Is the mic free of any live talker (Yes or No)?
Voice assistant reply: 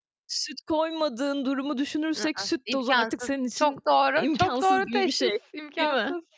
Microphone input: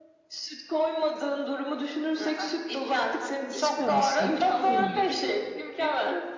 No